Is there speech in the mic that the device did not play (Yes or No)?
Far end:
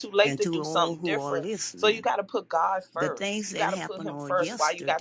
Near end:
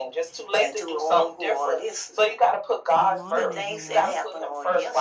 Yes